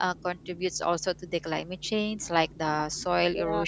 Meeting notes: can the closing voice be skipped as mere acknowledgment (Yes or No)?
Yes